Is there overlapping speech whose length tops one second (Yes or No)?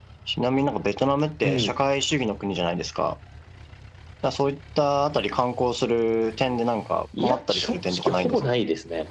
Yes